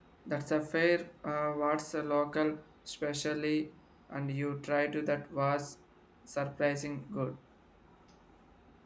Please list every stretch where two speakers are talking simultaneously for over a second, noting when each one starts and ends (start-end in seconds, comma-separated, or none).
none